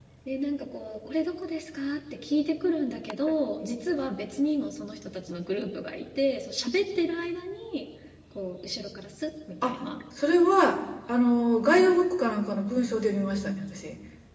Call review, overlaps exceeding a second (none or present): none